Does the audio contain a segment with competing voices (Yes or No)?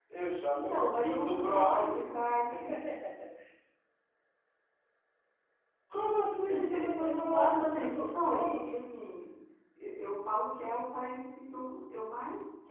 Yes